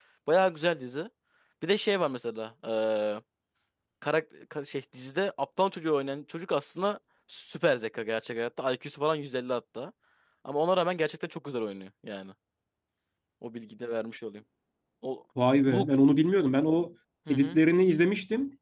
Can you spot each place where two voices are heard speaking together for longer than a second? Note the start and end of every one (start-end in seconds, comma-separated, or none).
none